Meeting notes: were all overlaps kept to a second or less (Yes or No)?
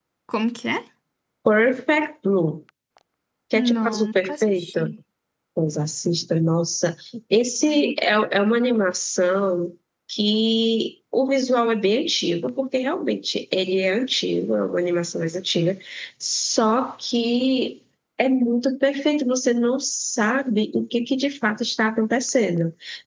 No